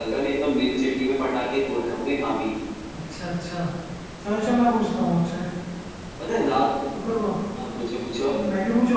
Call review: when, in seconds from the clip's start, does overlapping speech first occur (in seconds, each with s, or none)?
none